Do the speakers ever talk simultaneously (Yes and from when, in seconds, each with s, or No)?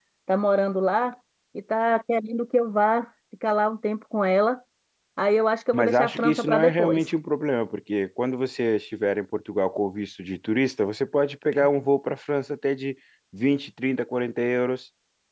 Yes, from 5.7 s